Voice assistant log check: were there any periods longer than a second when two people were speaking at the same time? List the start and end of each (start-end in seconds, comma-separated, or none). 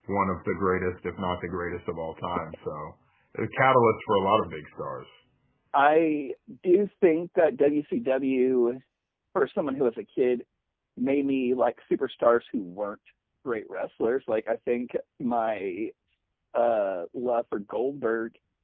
none